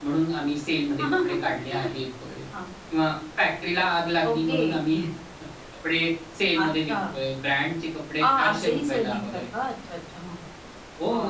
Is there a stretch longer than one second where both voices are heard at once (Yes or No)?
Yes